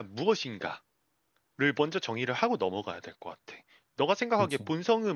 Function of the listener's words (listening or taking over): listening